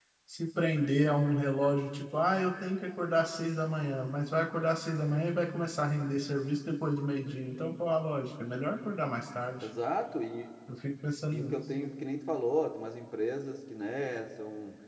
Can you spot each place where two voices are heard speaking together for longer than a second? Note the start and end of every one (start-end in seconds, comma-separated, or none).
none